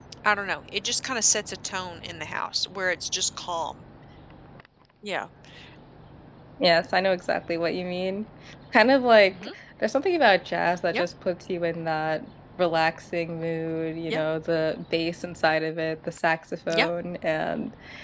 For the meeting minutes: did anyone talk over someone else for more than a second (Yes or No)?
No